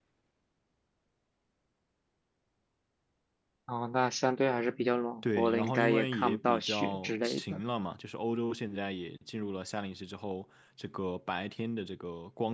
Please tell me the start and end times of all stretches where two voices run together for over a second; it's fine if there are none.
5.4-7.6

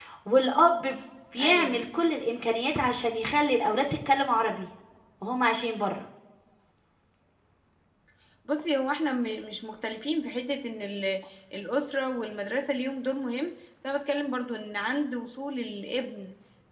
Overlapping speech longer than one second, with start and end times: none

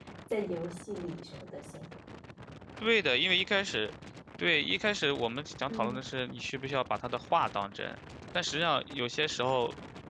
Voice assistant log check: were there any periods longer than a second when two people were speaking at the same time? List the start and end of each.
none

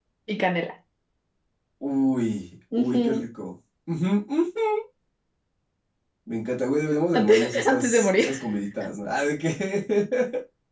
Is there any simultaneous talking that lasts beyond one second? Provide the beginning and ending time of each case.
7.1-8.3

